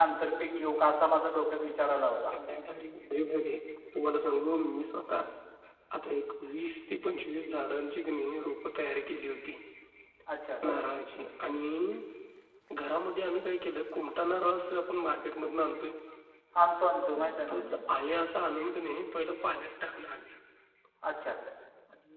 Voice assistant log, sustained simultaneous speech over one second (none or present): none